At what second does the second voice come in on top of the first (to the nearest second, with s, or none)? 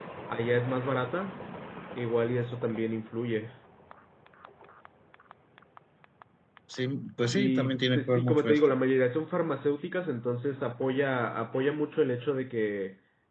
7 s